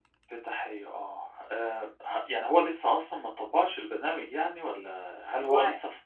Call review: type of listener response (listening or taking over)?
listening